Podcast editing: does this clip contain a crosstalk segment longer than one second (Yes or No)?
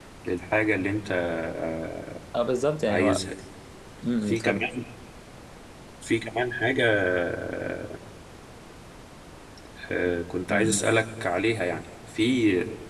No